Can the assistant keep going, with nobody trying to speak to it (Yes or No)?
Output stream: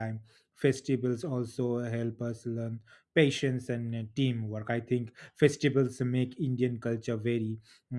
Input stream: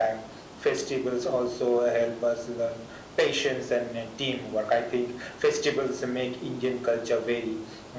Yes